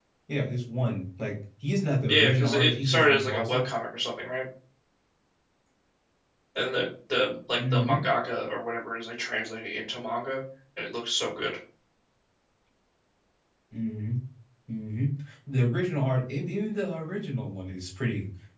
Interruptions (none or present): present